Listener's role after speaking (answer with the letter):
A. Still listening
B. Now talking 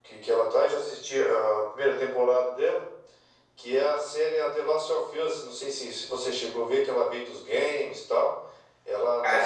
A